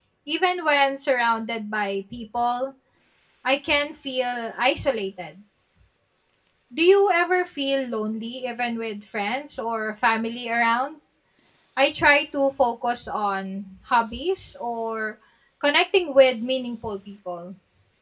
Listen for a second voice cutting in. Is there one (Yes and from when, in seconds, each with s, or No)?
No